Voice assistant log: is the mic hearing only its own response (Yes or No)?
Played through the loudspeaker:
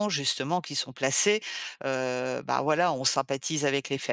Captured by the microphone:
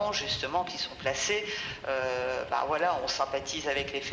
Yes